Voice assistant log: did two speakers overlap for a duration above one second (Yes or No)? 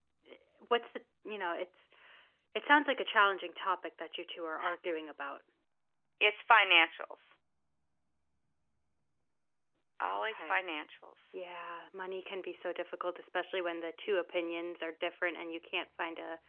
No